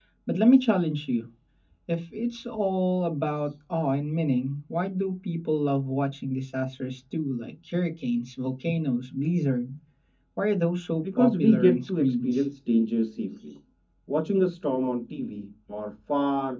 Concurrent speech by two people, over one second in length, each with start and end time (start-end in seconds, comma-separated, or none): 11.2-12.5